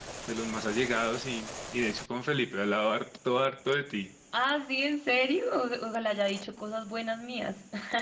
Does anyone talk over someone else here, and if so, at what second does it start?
none

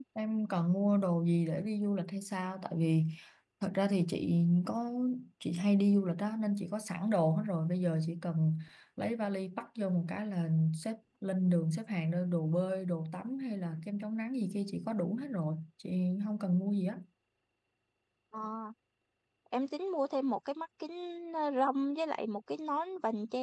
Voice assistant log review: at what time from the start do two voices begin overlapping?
none

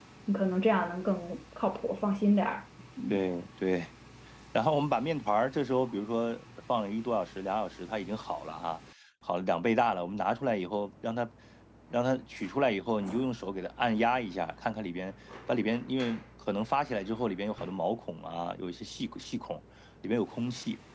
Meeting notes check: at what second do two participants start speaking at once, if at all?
none

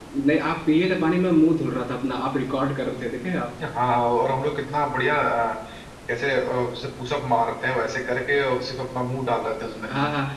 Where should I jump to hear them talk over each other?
none

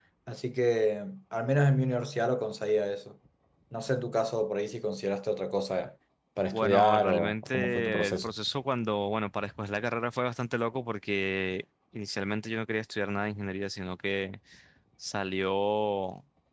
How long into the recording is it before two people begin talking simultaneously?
6.5 s

